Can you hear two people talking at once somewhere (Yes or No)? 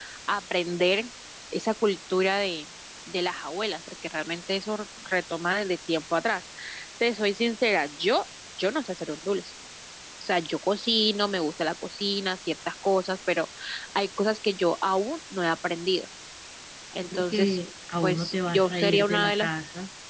Yes